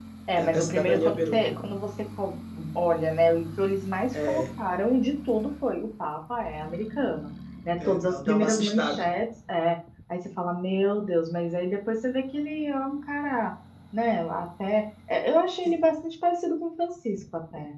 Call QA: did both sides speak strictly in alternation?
No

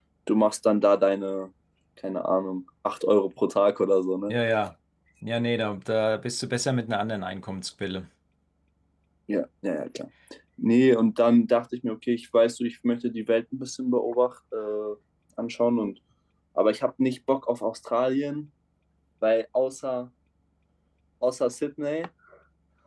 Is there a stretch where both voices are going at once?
No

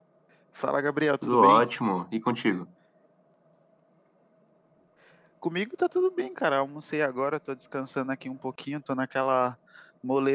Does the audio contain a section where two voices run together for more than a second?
No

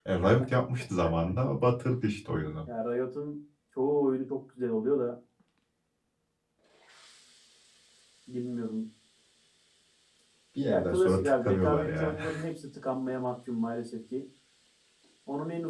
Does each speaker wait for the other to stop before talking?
No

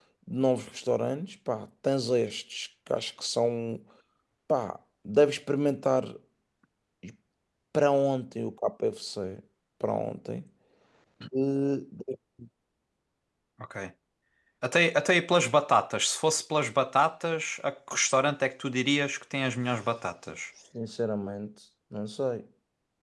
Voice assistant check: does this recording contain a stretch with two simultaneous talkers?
No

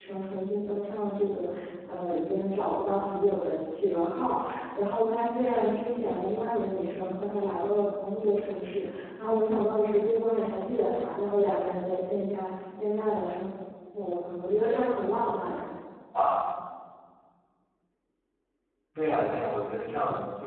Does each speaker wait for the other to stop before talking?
Yes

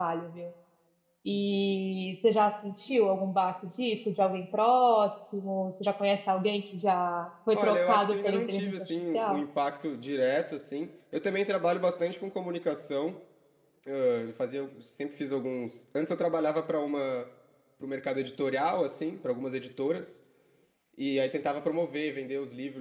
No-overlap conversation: No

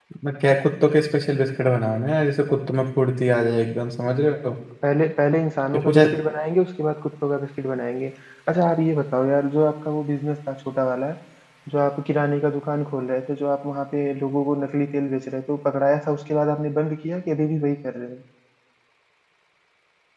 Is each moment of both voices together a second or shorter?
Yes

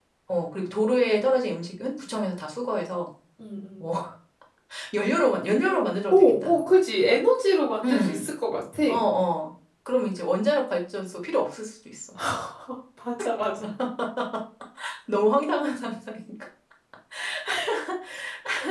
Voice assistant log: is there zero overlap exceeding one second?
Yes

